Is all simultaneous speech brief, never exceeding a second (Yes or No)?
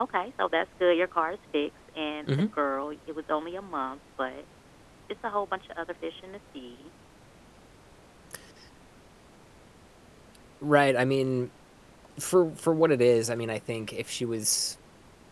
Yes